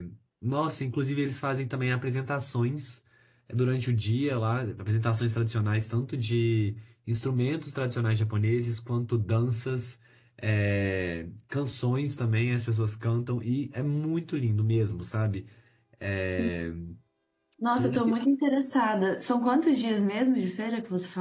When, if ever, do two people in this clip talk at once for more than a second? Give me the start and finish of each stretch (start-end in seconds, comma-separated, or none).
none